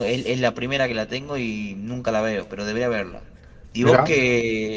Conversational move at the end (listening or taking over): listening